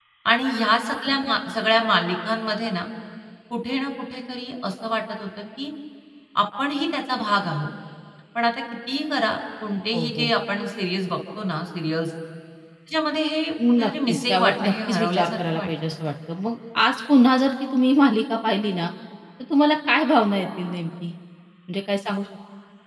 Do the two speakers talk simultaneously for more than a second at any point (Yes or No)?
Yes